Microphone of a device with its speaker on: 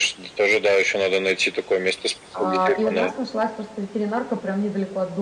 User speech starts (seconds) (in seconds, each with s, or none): 2.3 s